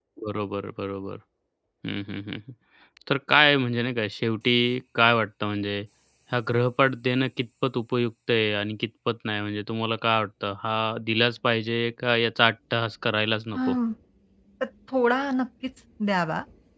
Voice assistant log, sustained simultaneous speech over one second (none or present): none